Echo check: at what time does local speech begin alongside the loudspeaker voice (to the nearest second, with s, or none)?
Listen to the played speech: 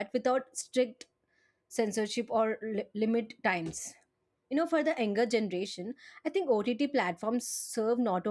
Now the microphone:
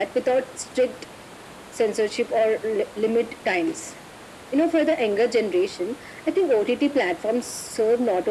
none